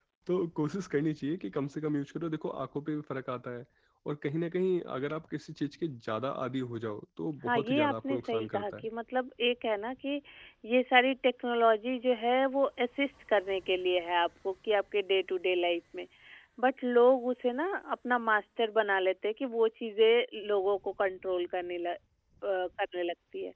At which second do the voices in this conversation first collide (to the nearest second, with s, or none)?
7 s